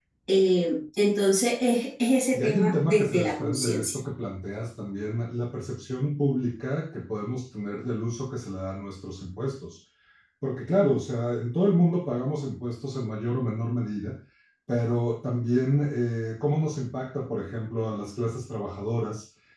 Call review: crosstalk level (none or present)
present